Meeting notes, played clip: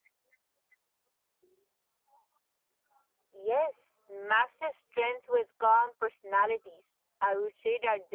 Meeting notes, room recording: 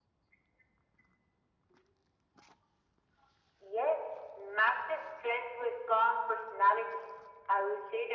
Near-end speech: none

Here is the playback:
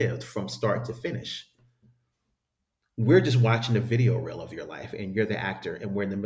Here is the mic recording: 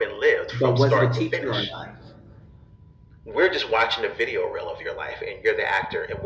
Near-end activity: present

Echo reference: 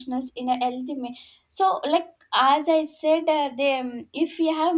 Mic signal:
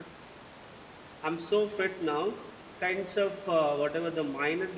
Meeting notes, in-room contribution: present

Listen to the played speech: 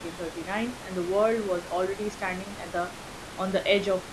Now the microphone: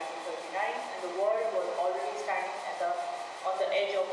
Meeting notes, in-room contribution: none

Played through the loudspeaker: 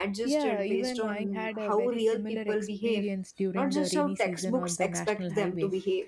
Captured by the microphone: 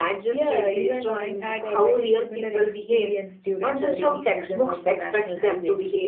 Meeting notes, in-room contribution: none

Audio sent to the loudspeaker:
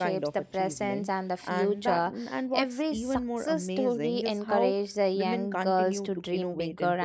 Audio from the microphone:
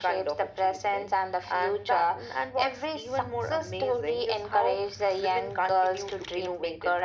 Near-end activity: none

